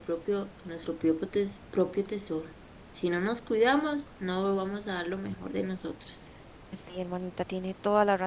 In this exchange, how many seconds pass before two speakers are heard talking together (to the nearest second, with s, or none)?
none